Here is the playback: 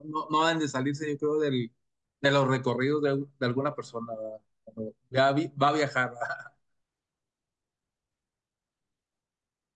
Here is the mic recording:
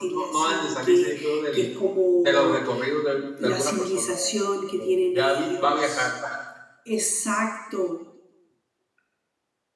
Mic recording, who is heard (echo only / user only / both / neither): both